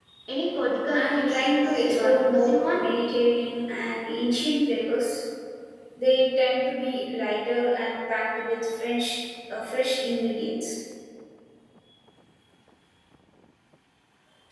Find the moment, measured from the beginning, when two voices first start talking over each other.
0.9 s

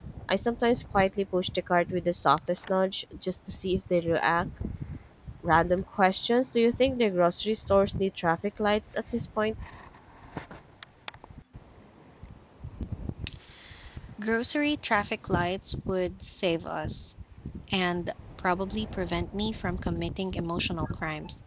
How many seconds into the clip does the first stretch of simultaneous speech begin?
none

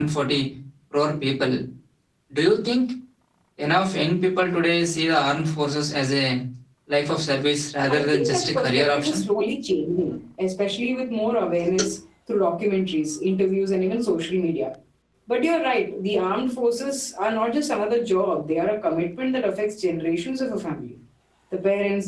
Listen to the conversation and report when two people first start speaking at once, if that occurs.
7.9 s

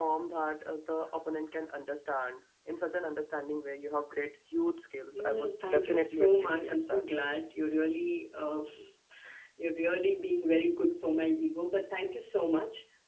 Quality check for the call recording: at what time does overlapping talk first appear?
5.1 s

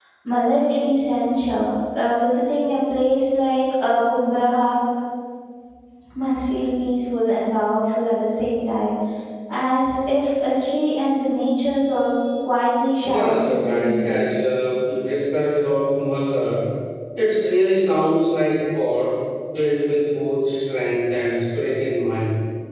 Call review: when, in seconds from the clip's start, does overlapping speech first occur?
13.0 s

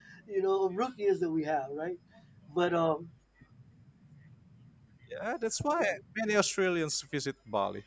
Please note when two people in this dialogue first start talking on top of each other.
none

